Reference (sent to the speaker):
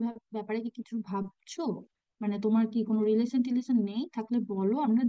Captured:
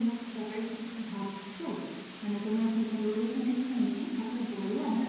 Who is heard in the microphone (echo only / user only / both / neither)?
echo only